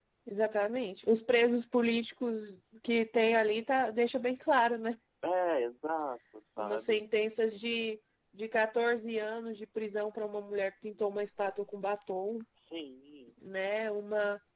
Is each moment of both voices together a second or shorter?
Yes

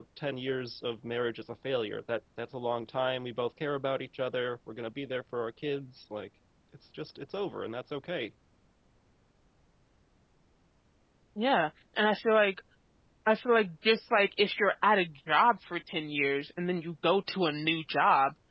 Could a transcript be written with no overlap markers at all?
Yes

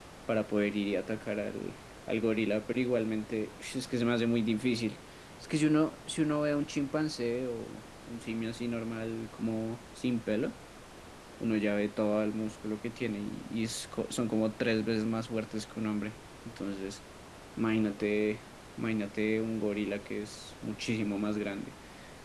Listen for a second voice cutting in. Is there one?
No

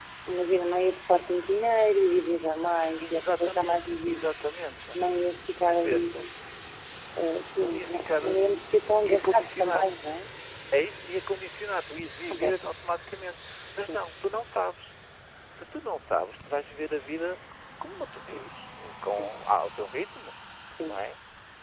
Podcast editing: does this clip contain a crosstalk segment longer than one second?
Yes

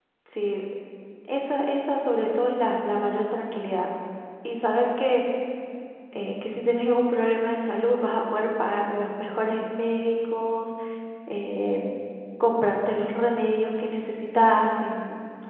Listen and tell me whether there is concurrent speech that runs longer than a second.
No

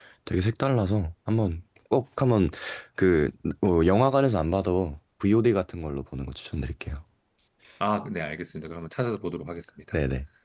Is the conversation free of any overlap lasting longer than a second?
Yes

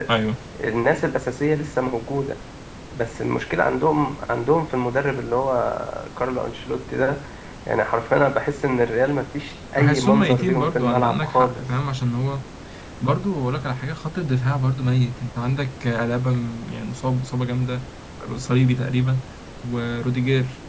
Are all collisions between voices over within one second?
No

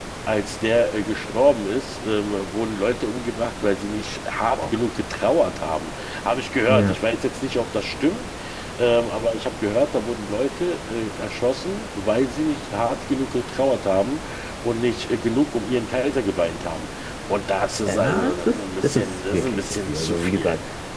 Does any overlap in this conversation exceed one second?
Yes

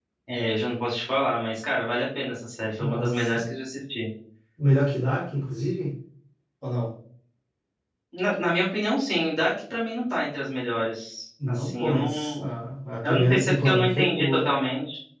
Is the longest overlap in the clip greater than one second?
Yes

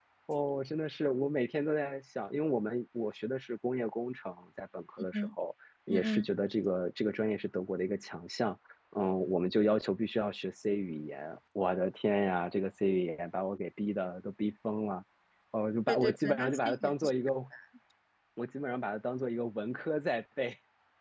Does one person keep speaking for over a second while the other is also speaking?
Yes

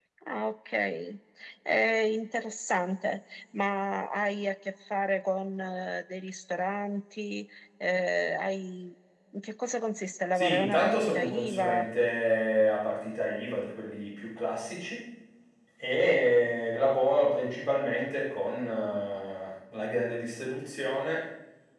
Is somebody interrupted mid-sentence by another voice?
Yes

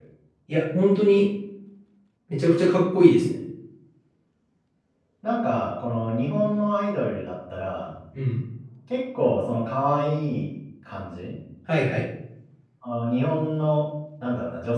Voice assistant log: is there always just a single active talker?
Yes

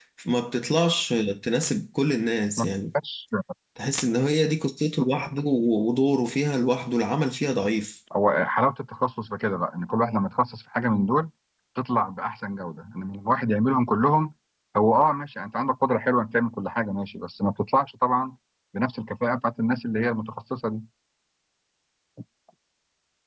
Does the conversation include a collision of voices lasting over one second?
No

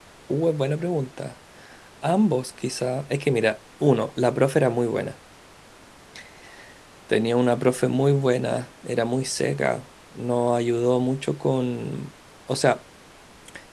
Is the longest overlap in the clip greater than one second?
No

